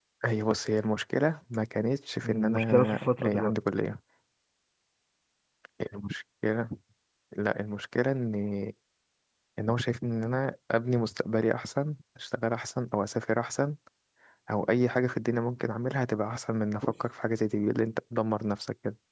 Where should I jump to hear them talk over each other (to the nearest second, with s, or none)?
2 s